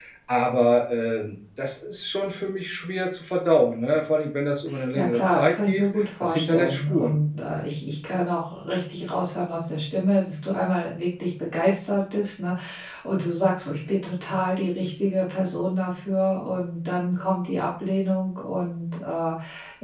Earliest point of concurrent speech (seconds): 4.9 s

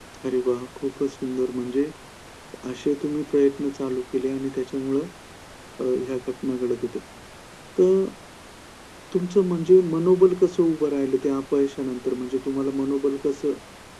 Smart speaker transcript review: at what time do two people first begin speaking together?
none

